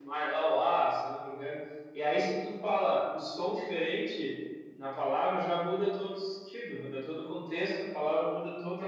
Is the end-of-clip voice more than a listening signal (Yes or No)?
No